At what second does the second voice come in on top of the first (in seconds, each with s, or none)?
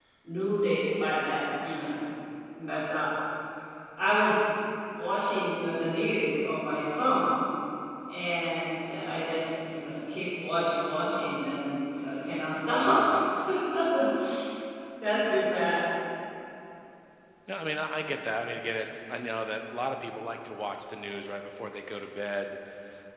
none